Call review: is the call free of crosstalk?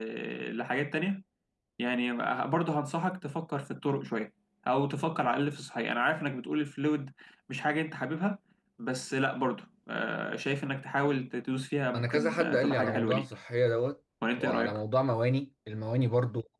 No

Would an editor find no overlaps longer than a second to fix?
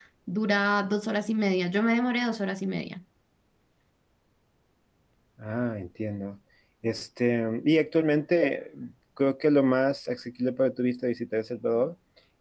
Yes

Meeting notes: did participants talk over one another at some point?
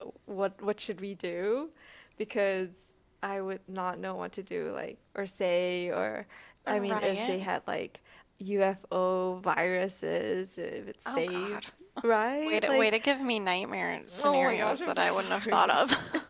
Yes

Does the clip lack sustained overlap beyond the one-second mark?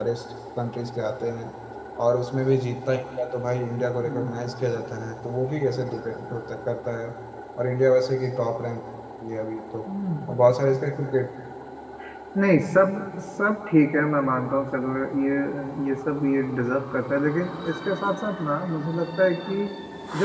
Yes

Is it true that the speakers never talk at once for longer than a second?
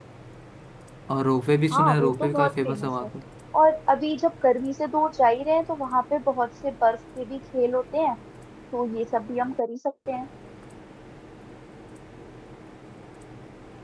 No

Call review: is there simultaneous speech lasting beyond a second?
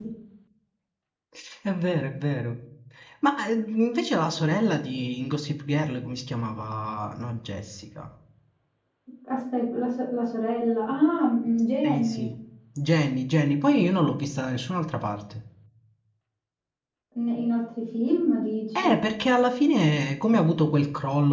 No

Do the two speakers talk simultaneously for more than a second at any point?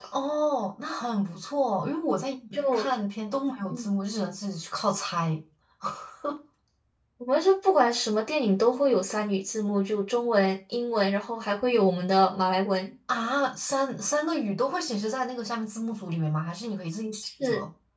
No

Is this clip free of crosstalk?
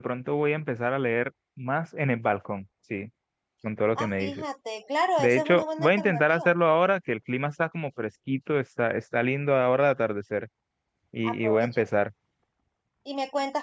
No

